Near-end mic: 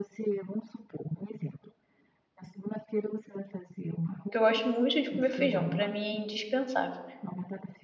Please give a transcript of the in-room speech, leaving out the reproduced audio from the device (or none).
porque eu gosto muito de comer feijão, pra mim é indispensável.